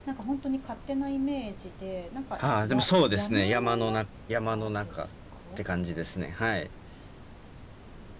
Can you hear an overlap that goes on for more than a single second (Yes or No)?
Yes